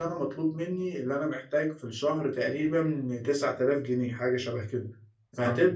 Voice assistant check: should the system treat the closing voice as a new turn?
No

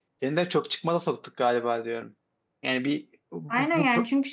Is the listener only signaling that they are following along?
No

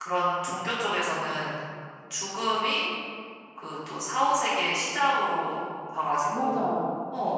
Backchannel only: Yes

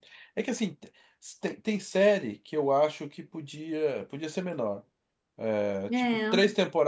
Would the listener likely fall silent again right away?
Yes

